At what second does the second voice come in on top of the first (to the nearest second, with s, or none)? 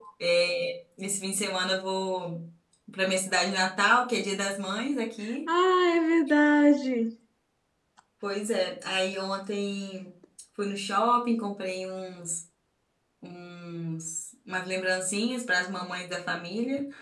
none